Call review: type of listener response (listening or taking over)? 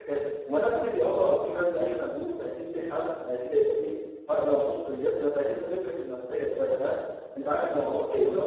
listening